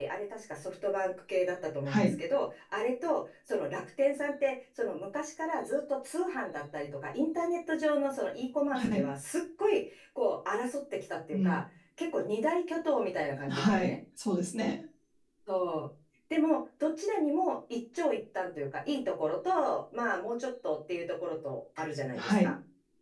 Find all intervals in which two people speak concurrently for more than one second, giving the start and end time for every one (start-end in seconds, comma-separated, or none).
none